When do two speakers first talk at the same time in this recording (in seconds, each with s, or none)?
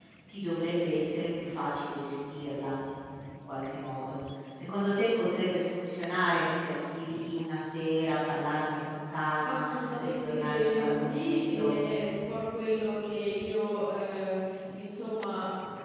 9.4 s